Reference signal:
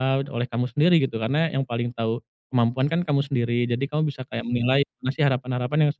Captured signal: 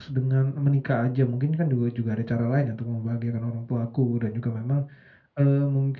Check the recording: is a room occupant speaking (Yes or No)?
Yes